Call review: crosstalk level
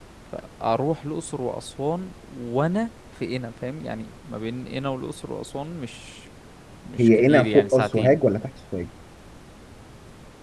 present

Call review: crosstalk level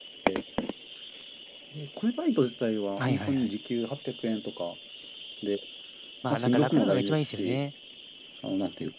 present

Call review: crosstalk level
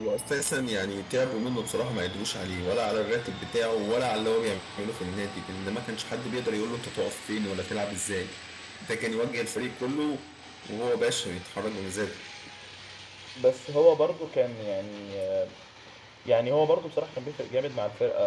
none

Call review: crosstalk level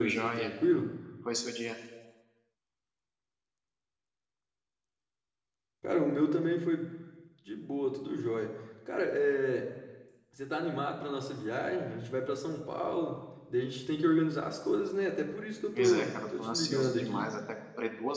present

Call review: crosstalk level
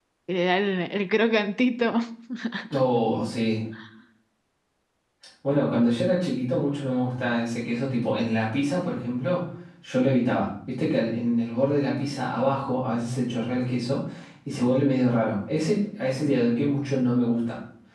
none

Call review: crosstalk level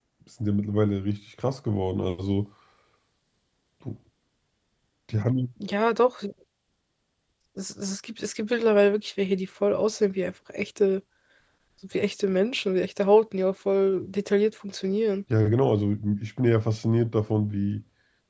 none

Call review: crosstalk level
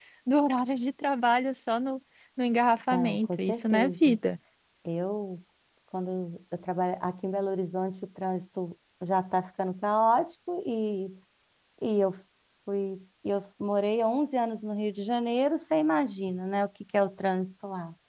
present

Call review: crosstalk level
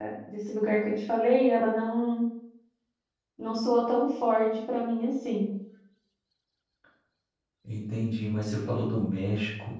none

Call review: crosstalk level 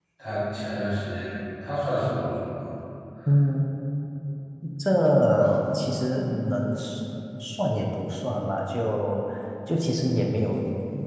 none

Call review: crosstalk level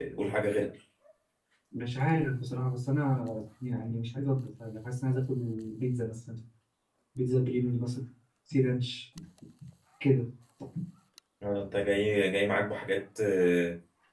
none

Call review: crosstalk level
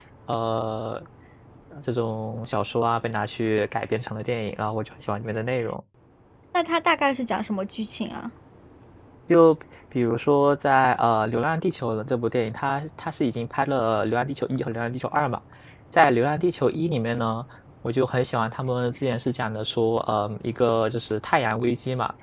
none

